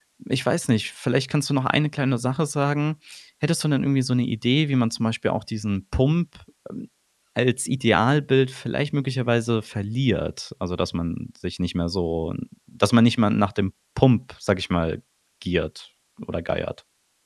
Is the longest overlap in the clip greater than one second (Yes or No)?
No